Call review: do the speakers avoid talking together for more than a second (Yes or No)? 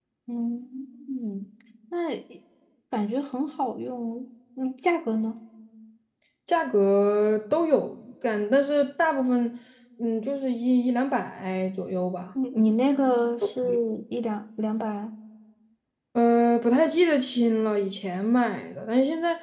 Yes